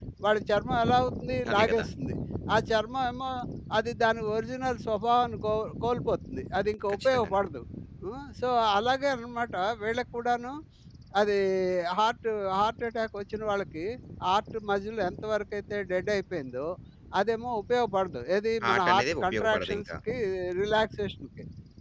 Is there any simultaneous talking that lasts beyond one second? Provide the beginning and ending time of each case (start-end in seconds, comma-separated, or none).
18.6-19.8